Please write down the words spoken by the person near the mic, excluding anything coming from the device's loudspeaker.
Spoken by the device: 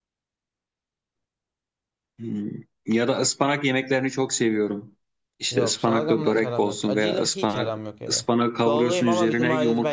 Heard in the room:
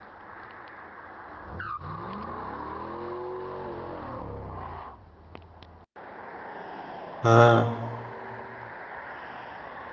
Ha,

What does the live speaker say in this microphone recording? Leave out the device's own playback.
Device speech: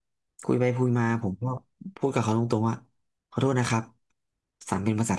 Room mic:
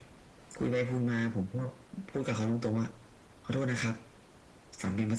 none

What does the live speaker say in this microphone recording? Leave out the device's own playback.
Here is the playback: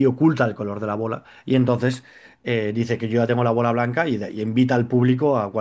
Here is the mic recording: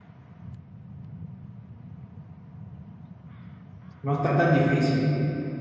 No está tan difícil.

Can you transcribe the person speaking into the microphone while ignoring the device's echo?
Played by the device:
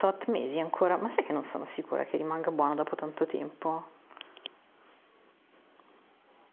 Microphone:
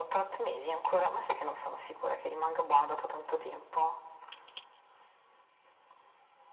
none

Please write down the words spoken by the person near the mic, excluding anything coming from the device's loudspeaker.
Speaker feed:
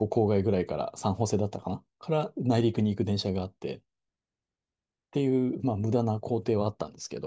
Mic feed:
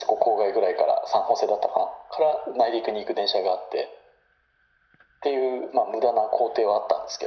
none

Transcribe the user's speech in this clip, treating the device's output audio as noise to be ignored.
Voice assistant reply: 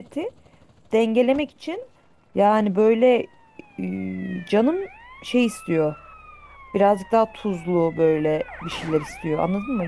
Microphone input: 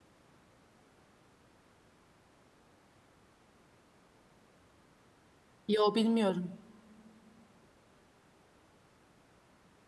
Yo bilmiyorum.

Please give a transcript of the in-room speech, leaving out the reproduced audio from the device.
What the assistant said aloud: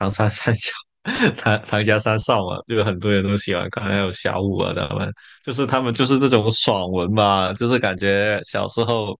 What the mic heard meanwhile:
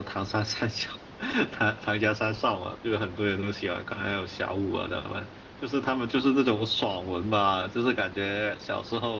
none

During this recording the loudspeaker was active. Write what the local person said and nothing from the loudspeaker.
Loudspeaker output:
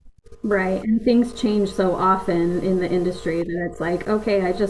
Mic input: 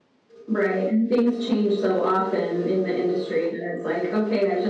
none

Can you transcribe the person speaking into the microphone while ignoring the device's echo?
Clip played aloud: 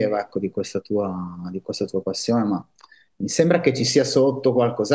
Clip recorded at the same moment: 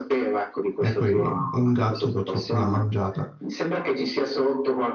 e poi un gatto purtroppo l'ha mangiata

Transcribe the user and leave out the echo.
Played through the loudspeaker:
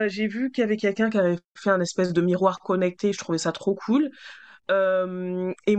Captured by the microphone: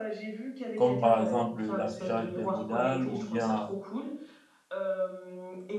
comme par exemple l'affichage des modales ou bien

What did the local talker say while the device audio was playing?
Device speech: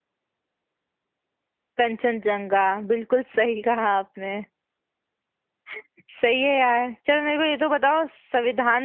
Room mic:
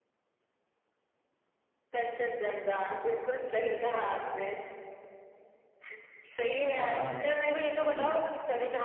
अच्छा हाँ स्किन

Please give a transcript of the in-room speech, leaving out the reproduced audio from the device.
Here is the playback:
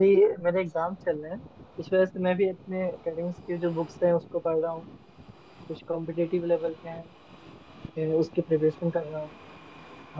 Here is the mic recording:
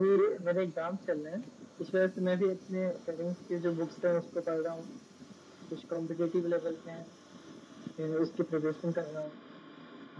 none

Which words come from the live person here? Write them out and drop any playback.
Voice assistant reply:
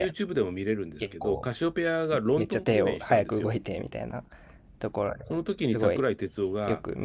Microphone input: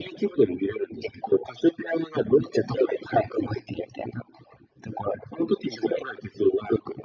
none

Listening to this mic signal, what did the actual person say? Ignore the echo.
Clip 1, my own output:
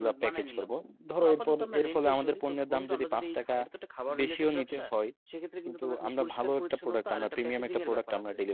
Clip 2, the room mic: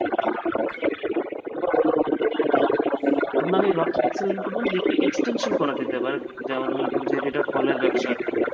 এখন আমি ভাবতেছিলাম কি বন্ধু একটু এক্সটেনশন করা যেতে পারে যেমন মনে করো যেহেতু এটা ফলের ব্যবসা

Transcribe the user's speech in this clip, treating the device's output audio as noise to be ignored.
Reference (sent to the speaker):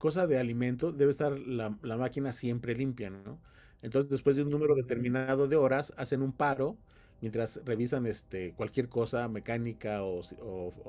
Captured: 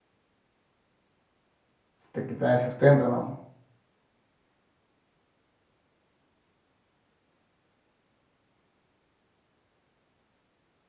te quitan el sustento, ¿no?

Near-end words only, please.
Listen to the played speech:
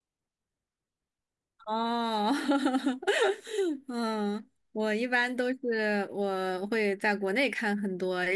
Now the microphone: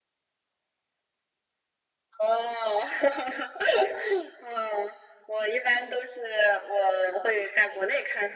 none

